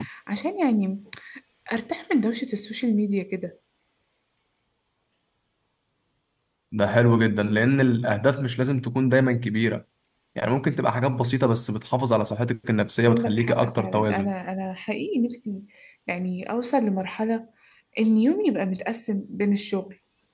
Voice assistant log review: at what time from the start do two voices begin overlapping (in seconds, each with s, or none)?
13.1 s